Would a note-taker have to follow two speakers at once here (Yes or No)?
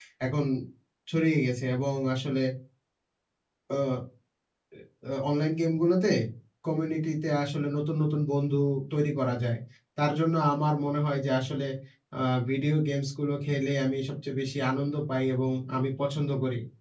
No